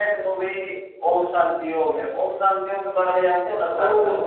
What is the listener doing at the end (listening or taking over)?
taking over